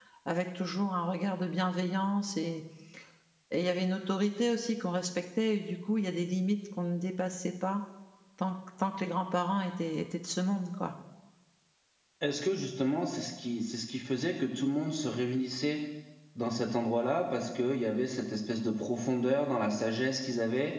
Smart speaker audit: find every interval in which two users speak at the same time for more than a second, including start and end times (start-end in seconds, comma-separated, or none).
none